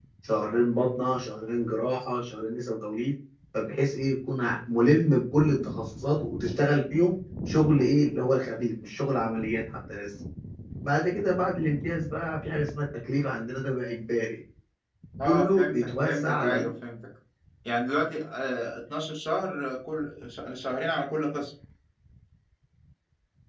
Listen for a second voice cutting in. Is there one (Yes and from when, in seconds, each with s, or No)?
Yes, from 15.3 s